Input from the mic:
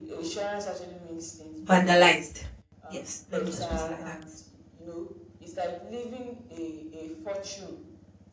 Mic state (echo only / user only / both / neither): both